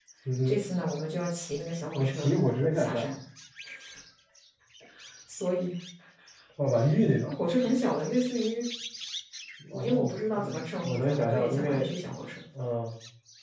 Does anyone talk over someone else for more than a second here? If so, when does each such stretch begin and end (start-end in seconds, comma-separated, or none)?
9.7-11.9